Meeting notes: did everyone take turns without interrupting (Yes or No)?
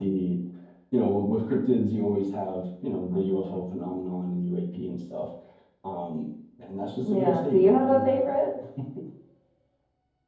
No